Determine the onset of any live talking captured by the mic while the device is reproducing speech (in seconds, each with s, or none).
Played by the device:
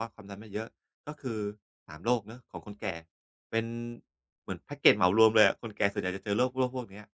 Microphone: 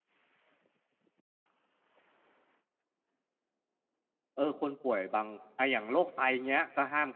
4.4 s